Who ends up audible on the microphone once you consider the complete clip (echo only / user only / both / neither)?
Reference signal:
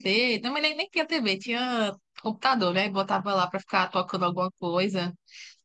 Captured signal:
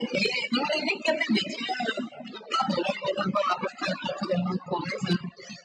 echo only